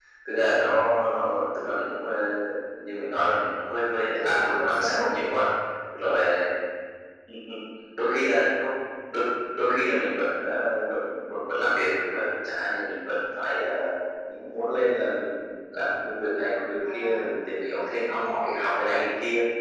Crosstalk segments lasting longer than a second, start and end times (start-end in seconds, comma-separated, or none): 3.9-5.1